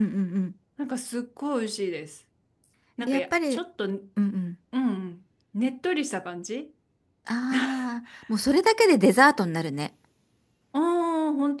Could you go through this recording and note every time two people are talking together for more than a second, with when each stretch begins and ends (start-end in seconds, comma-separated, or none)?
none